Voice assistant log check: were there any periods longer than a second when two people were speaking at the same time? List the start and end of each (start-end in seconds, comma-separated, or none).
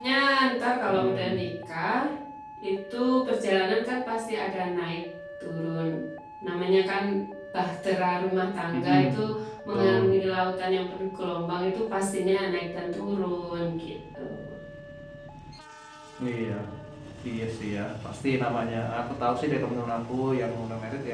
none